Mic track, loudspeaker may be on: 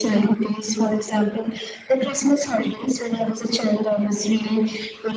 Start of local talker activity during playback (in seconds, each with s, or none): none